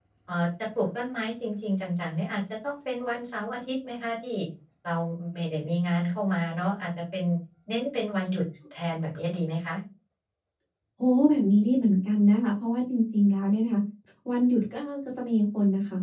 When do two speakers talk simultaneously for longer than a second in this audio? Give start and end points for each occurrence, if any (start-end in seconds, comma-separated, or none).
none